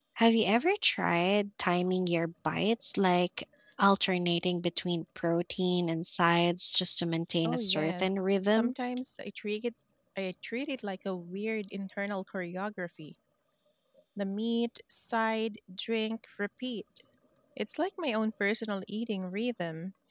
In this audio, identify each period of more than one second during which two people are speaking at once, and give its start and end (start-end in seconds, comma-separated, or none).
7.4-8.7